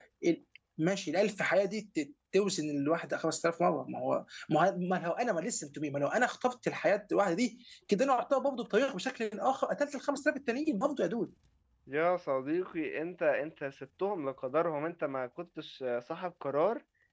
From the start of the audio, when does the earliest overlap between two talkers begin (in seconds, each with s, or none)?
none